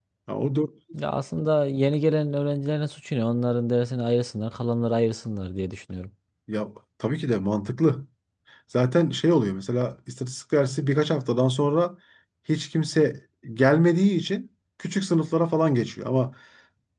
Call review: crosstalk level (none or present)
none